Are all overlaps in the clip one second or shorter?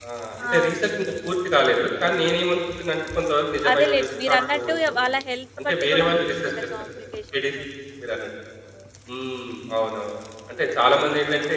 No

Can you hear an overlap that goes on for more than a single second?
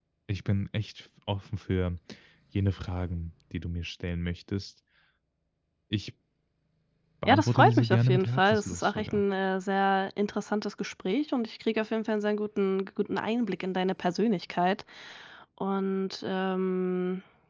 Yes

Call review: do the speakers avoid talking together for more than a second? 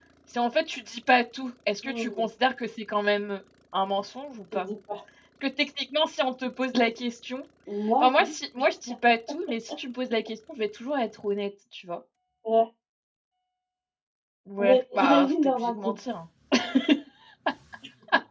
No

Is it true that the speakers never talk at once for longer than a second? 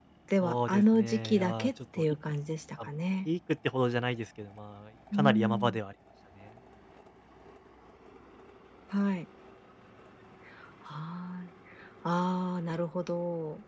No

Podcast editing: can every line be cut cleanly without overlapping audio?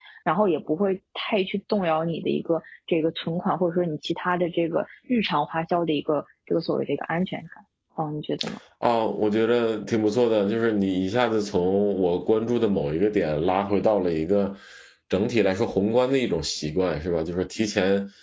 Yes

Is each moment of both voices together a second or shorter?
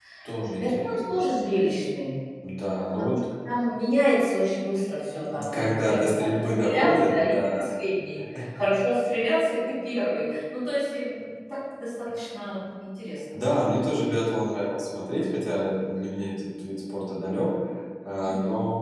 No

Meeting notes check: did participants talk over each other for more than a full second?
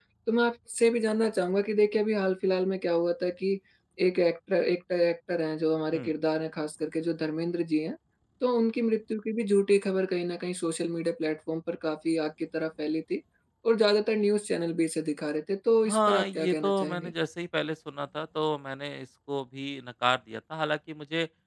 Yes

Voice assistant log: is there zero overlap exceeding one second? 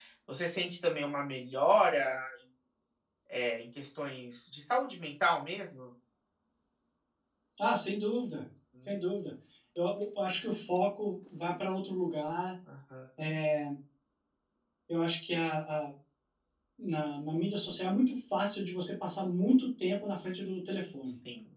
Yes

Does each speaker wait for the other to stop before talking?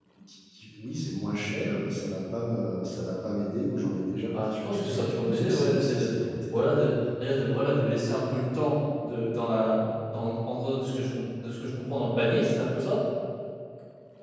No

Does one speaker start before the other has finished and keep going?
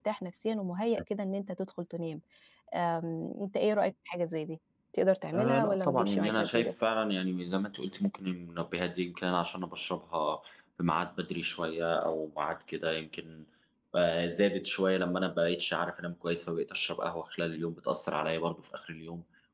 Yes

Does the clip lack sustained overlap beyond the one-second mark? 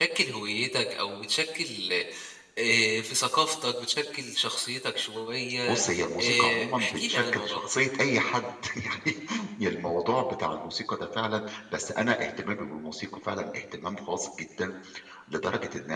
No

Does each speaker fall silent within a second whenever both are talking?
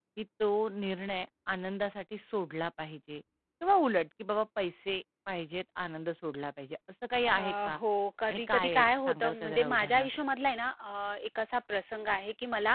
No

